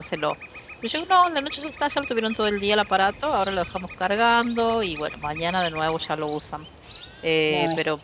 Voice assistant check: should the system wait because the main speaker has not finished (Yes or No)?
Yes